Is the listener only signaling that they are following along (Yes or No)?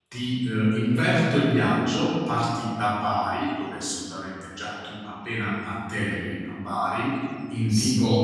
Yes